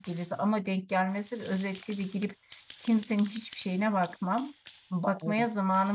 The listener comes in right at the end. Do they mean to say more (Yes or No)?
No